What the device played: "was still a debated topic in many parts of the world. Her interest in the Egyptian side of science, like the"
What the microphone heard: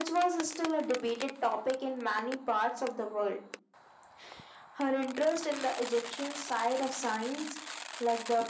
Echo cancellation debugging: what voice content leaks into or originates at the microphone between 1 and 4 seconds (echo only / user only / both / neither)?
echo only